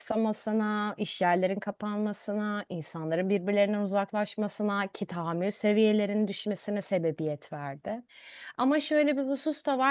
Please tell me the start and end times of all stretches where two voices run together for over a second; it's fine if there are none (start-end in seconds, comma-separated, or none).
none